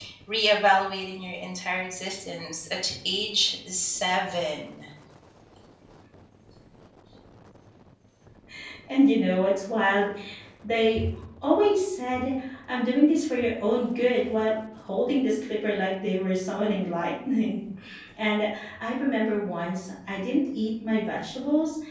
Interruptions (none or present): none